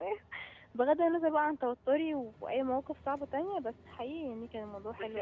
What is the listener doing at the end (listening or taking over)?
taking over